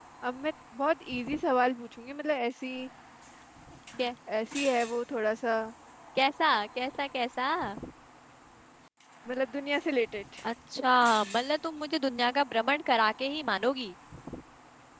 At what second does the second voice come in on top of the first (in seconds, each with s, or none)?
none